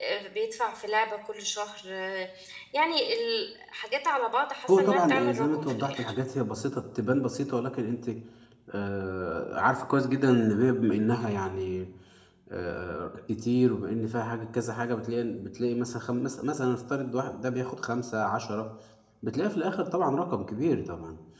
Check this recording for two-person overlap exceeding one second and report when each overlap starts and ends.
4.7-6.1

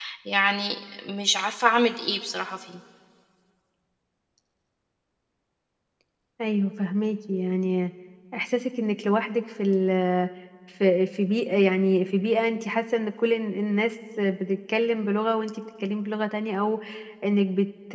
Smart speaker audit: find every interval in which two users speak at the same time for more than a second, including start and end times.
none

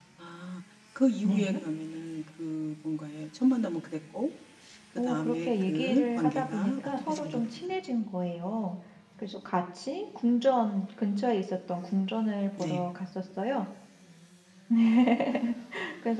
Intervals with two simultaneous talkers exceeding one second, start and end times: 5.0-7.7

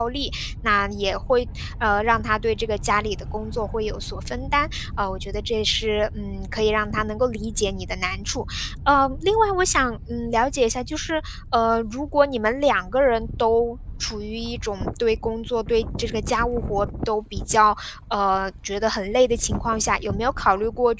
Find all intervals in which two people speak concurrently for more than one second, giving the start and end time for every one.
none

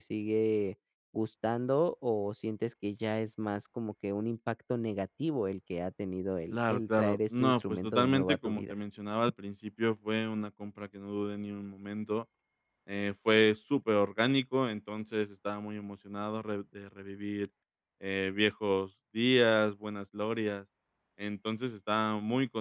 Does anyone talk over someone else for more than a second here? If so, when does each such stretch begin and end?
6.5-8.7

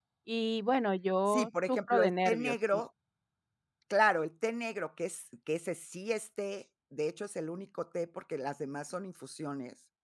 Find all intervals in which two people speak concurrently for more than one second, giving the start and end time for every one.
1.3-2.8

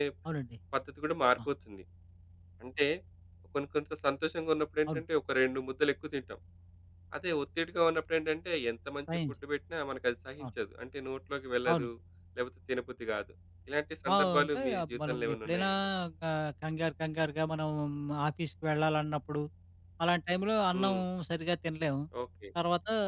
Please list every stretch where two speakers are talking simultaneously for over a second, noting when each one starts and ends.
14.1-15.7

